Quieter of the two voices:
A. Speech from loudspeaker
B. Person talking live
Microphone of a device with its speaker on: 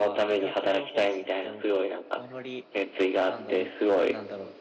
B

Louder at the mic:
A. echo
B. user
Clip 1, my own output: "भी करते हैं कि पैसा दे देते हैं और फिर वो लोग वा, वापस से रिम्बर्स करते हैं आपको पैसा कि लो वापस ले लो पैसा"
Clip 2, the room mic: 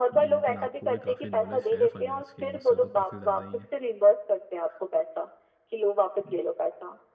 A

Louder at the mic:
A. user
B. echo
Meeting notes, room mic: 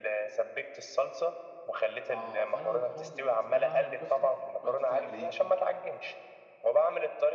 B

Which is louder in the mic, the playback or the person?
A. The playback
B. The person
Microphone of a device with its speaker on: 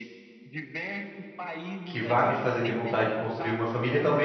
B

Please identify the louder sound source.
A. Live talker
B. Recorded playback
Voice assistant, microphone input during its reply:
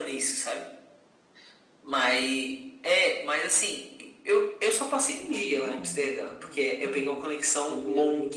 B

